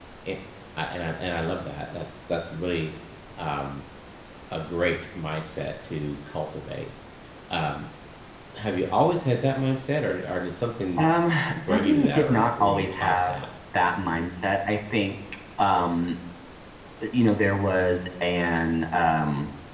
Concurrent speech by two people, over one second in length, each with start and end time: 11.7-13.3

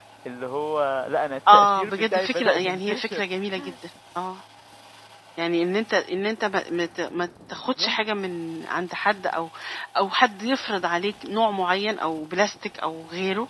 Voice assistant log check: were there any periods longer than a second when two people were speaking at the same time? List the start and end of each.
1.5-3.2

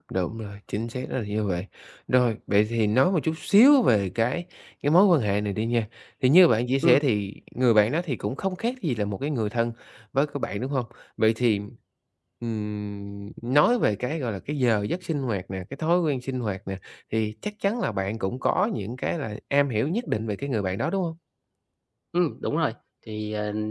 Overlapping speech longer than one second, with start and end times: none

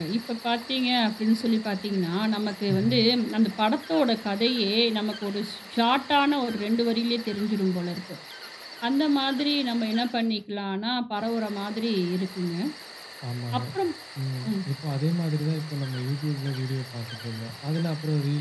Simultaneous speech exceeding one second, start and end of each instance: none

